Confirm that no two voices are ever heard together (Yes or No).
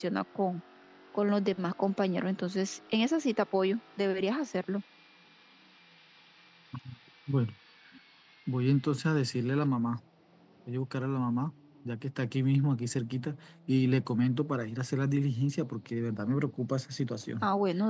Yes